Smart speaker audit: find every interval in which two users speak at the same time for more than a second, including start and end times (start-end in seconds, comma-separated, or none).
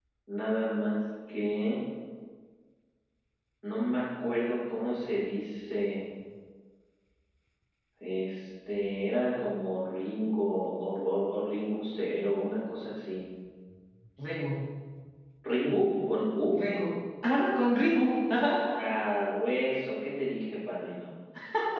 none